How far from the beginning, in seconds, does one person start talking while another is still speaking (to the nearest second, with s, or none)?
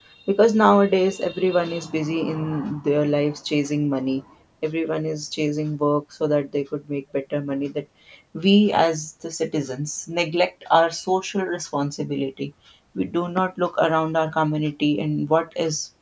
none